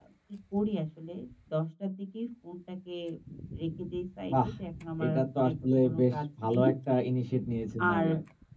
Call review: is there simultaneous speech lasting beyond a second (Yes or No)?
Yes